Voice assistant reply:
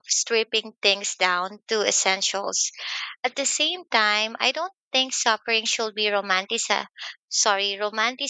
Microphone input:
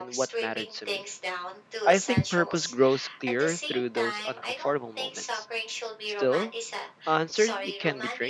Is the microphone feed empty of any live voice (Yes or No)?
No